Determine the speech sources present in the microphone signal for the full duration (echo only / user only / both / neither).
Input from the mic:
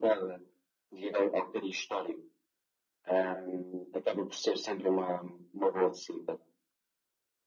echo only